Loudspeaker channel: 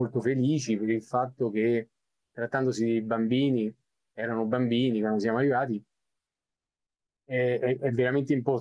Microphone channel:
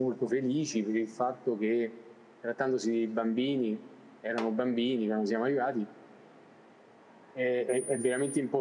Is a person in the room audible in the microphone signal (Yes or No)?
No